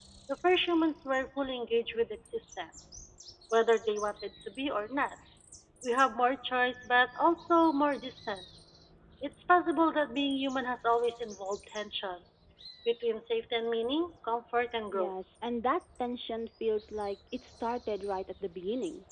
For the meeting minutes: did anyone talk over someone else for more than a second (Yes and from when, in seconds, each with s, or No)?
No